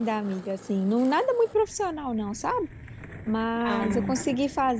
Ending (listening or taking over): listening